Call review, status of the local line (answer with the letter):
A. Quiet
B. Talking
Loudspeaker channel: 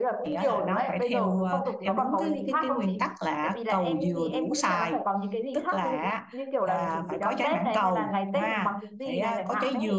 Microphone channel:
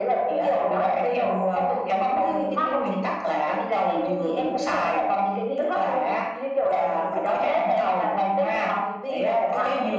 A